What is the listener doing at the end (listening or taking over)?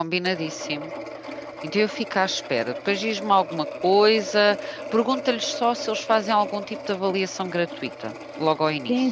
taking over